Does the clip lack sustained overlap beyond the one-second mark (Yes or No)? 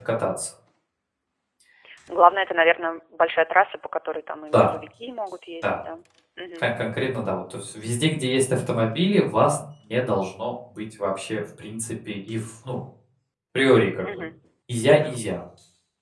Yes